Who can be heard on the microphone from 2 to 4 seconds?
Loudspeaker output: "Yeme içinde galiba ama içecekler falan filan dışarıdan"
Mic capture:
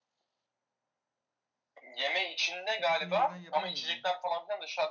both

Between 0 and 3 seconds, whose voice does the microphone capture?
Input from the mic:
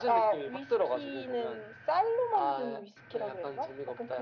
echo only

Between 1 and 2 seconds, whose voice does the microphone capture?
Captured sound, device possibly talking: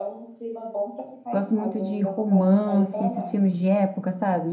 both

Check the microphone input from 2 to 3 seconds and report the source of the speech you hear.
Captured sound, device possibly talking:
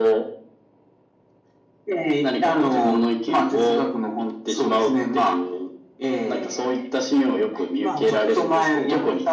echo only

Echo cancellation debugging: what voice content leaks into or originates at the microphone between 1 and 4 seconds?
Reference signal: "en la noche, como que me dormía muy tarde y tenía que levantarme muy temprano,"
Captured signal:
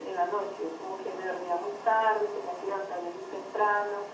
echo only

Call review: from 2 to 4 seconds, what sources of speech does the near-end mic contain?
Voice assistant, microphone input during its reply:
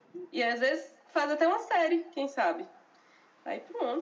echo only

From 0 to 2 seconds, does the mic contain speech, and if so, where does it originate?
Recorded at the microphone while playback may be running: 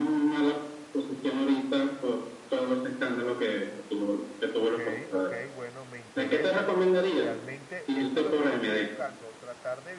echo only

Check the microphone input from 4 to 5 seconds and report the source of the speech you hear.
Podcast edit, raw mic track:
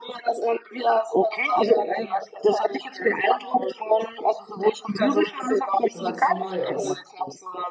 echo only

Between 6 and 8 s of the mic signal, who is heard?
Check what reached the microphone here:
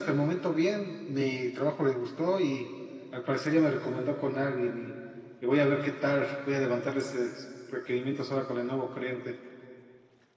echo only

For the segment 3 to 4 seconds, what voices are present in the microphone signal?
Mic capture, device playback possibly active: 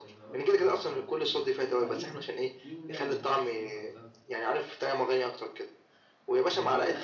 both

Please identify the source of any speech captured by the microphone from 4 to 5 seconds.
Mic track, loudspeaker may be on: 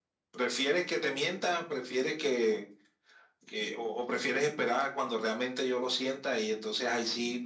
echo only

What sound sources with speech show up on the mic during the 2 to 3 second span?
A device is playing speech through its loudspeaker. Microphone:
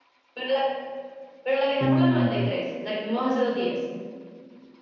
both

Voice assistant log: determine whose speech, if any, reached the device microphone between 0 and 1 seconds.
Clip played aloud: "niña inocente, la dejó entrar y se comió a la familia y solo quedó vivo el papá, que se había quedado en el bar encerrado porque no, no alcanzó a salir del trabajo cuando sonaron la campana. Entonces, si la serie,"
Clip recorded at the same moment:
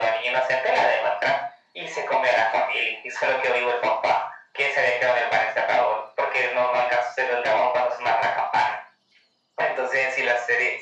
echo only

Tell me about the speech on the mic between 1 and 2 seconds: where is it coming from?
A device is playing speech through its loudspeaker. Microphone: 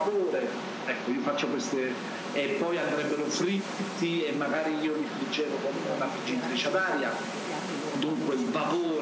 echo only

